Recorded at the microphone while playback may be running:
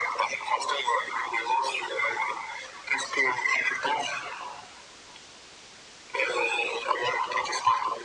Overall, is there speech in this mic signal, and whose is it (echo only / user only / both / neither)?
echo only